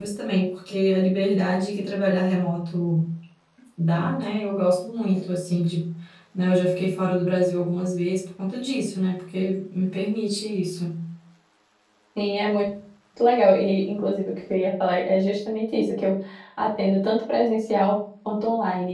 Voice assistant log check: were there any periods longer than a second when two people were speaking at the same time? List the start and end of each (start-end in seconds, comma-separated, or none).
none